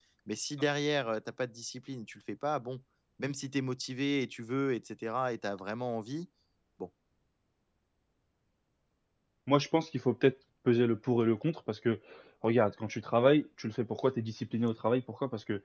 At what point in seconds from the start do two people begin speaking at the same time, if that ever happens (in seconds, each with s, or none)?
none